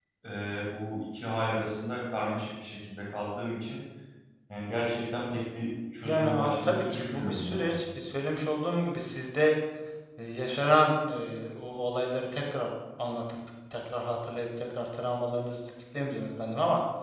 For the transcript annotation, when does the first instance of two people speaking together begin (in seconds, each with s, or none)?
6.0 s